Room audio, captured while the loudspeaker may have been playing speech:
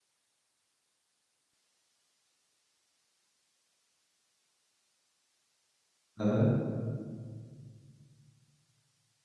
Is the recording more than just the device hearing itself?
Yes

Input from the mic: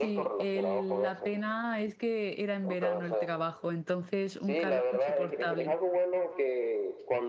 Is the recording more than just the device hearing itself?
Yes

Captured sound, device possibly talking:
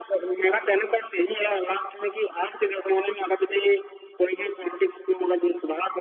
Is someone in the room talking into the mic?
No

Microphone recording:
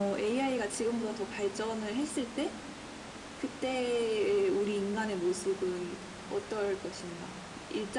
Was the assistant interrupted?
No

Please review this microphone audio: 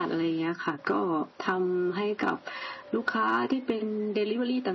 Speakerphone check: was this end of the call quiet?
Yes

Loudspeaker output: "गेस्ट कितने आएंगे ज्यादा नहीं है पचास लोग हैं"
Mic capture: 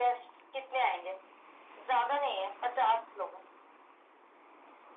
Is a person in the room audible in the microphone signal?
No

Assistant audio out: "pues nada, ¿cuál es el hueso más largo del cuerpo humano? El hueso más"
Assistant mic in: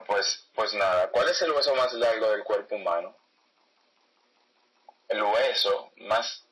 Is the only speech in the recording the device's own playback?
Yes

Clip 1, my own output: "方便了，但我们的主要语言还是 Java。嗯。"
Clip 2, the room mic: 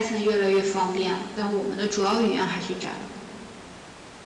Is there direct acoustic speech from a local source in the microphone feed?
No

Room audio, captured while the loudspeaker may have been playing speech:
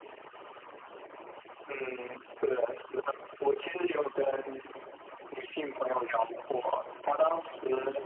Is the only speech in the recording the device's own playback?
No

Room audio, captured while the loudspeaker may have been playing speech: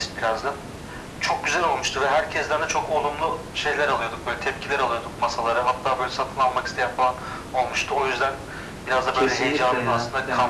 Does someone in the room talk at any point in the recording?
Yes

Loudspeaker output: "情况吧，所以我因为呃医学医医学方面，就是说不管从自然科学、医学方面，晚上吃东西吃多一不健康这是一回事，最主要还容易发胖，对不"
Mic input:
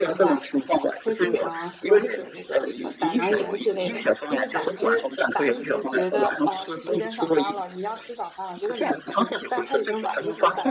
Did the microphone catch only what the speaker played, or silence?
No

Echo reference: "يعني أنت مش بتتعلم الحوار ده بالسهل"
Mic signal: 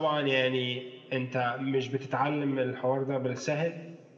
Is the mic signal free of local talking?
Yes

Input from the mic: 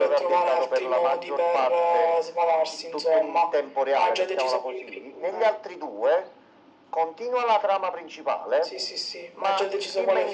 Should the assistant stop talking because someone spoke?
No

